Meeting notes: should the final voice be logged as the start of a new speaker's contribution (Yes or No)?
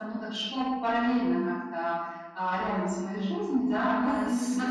Yes